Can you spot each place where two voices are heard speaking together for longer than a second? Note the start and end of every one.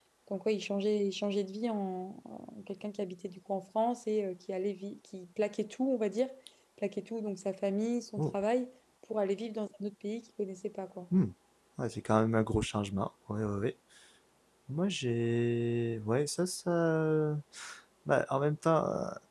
none

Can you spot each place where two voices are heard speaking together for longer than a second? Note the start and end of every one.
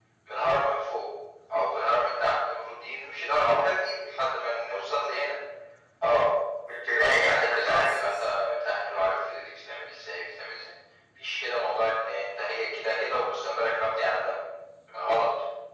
6.8-8.2

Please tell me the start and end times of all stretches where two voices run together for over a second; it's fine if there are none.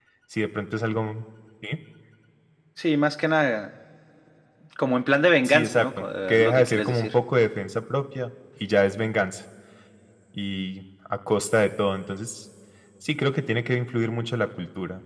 5.4-7.2

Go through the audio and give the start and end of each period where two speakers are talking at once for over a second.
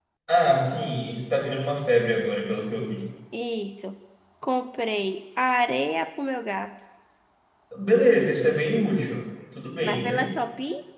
none

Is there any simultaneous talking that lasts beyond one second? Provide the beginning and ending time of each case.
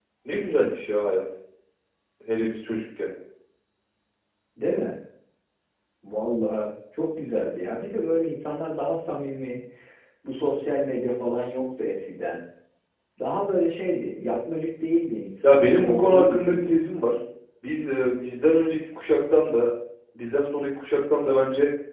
15.4-16.7

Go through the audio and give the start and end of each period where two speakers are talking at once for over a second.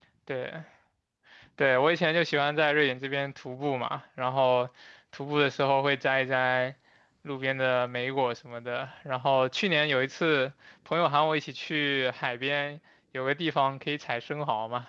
none

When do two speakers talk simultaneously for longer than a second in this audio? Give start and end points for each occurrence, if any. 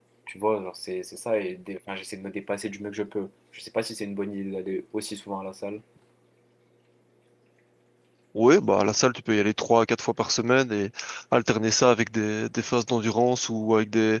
none

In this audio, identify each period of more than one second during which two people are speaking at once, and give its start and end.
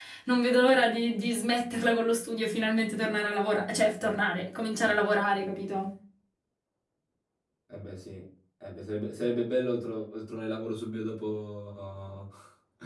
none

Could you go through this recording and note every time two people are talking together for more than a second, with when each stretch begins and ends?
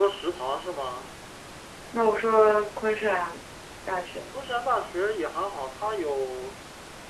none

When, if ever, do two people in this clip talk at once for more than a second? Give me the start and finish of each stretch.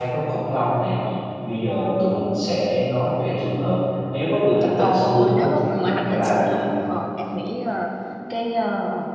4.8-6.6

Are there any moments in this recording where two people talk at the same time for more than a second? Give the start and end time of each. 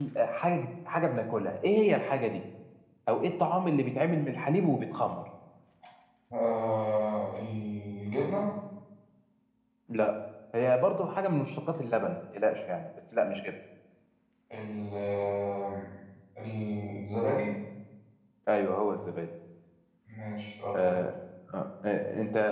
none

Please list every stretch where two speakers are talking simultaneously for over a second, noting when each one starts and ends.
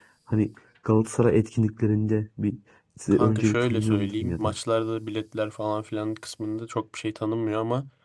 3.1-4.5

